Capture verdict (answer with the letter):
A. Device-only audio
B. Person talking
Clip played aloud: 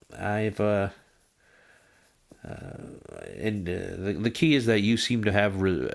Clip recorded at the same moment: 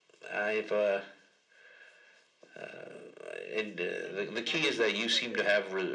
B